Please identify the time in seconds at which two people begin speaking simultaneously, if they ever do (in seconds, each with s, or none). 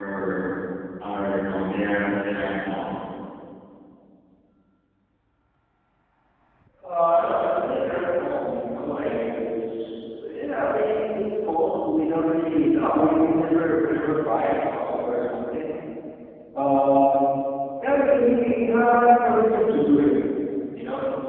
none